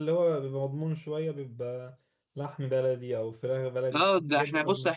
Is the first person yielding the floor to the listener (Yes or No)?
Yes